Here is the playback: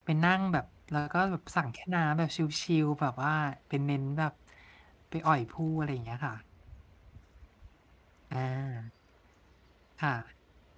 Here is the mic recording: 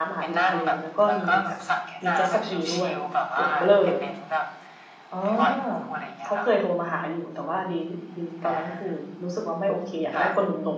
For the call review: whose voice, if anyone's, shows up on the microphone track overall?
both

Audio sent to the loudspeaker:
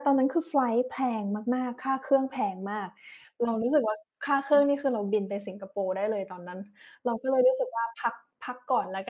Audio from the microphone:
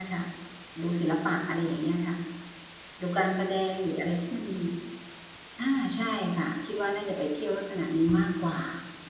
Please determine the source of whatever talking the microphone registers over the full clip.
user only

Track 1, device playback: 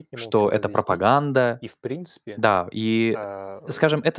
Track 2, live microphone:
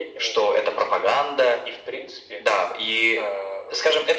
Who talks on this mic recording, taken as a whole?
echo only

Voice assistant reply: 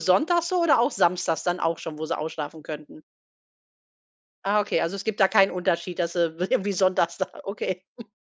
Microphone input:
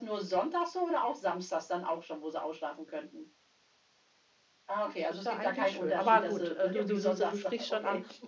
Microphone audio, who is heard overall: both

